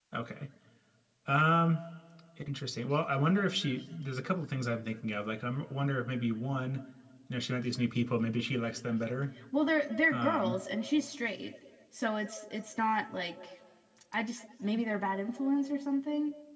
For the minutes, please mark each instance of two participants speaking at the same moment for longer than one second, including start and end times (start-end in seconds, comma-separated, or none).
none